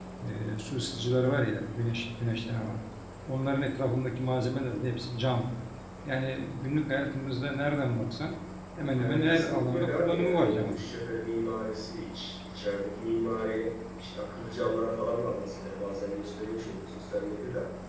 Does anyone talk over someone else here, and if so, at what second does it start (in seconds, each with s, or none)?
8.9 s